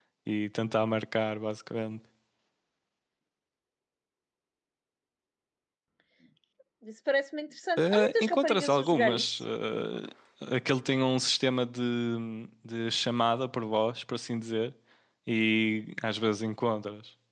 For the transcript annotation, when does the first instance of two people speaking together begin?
7.8 s

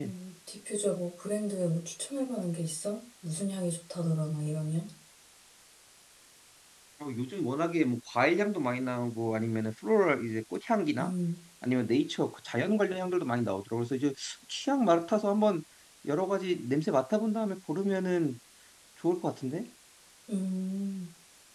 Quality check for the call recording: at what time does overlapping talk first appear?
none

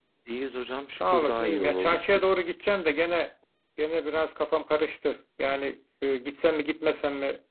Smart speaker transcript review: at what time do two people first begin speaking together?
0.9 s

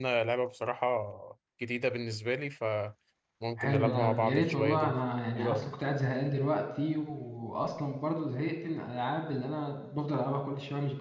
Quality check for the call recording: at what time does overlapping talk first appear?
3.6 s

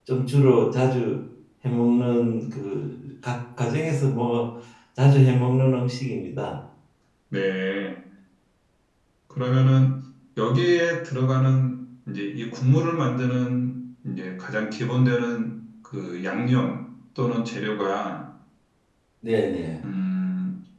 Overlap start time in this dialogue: none

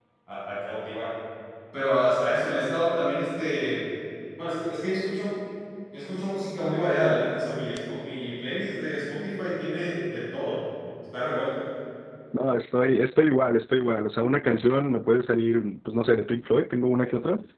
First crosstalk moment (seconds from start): none

